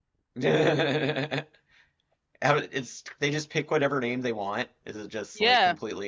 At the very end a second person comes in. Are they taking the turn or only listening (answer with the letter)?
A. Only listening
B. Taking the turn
B